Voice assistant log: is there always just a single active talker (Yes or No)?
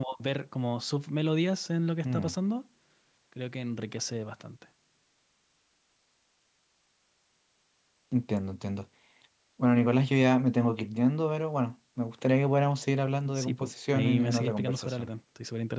No